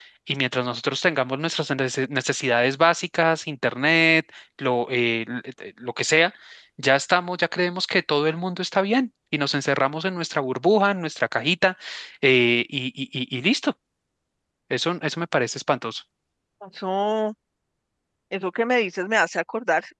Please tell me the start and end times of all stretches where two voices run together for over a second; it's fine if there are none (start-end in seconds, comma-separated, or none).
none